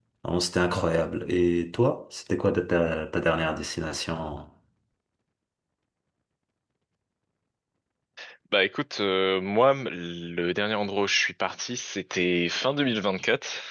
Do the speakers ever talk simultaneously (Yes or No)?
No